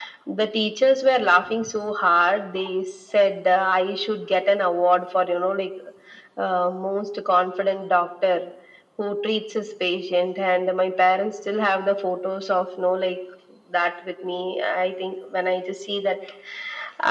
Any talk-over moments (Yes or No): No